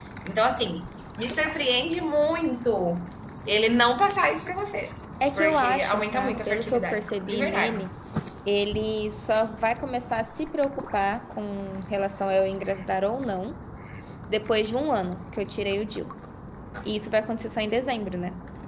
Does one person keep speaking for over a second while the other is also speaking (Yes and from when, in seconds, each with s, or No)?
Yes, from 5.2 s